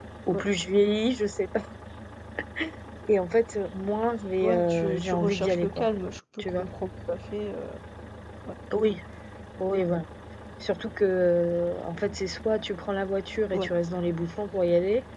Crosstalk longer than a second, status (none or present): present